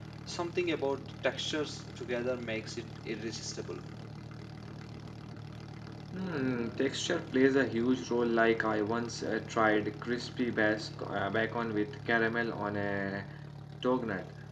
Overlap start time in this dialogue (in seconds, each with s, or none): none